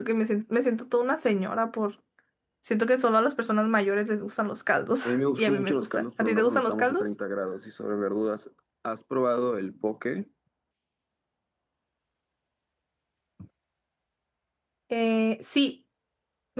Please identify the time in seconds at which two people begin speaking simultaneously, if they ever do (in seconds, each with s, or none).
5.0 s